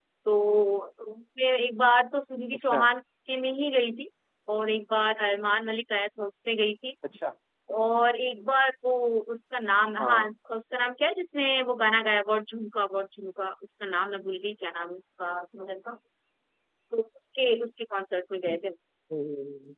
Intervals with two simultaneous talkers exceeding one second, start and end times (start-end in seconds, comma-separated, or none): none